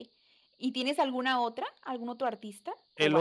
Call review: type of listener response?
taking over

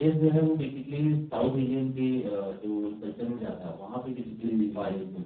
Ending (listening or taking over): taking over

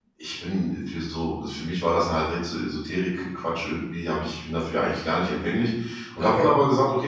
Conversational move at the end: listening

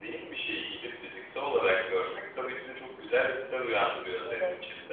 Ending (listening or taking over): listening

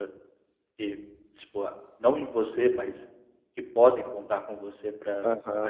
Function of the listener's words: taking over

